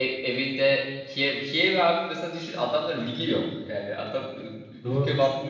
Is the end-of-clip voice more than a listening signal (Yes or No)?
No